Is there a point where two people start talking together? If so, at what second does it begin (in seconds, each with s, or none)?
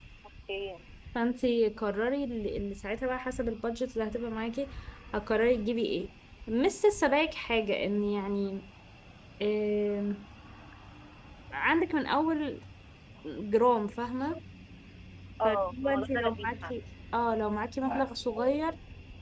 15.4 s